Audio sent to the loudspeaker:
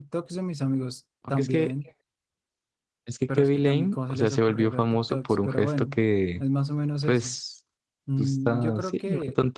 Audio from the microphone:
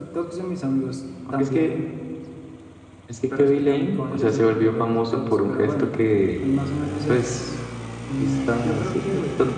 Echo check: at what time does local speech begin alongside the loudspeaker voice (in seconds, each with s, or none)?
none